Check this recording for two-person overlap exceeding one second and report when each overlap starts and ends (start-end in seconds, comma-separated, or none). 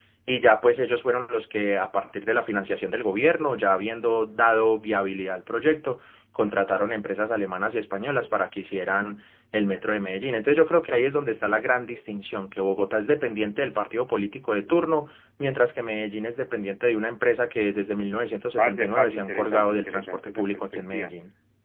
18.6-21.1